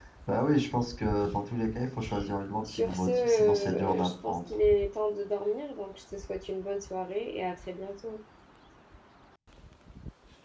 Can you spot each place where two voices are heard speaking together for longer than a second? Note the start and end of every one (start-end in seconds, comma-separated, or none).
2.7-4.4